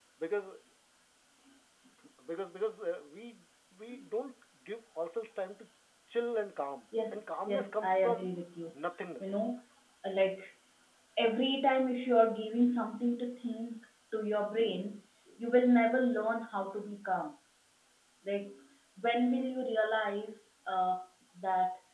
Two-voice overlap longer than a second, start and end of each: 7.1-8.3

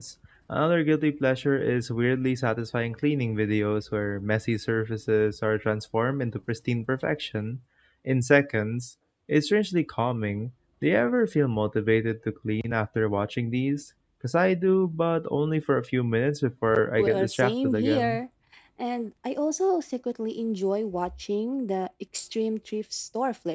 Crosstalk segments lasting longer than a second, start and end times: 17.0-18.2

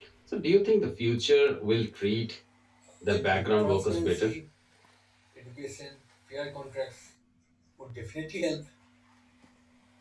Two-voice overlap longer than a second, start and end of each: 3.1-4.3

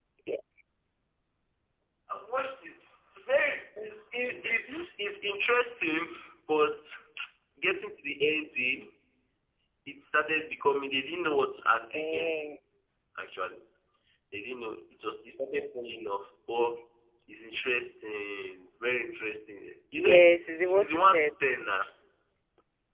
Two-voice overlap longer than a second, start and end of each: 20.0-21.3

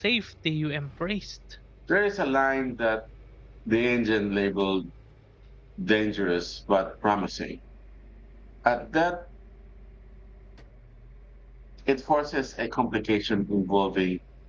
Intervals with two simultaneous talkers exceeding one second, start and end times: none

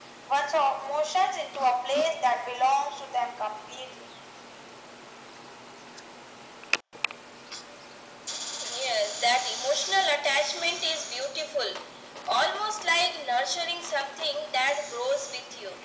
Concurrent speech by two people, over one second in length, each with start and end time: none

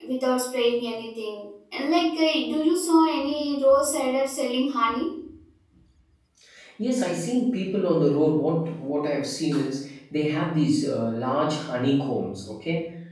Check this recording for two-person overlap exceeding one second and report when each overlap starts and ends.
none

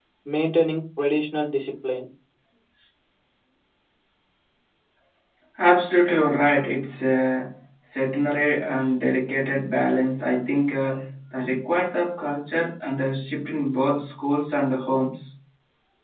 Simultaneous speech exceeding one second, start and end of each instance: none

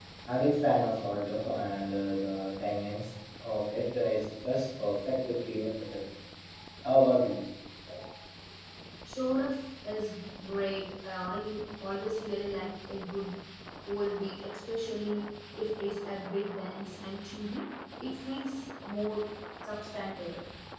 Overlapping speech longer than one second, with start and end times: none

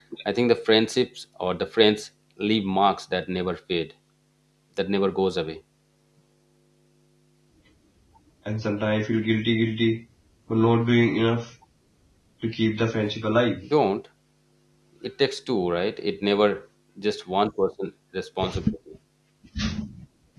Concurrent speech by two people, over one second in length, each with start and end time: none

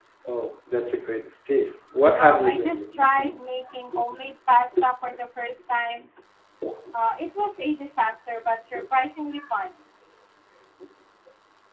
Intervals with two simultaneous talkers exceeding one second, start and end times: 2.2-3.4

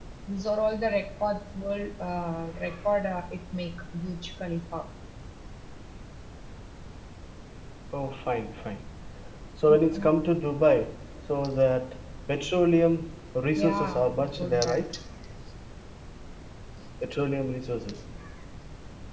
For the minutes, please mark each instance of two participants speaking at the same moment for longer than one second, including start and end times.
13.6-14.9

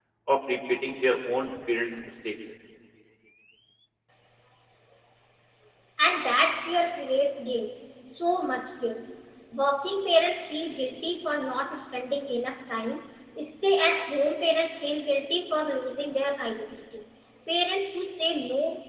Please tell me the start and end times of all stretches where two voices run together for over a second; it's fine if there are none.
none

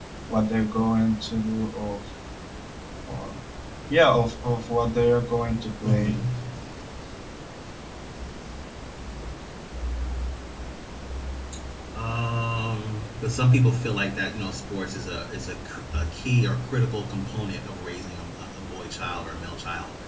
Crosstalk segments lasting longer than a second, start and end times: none

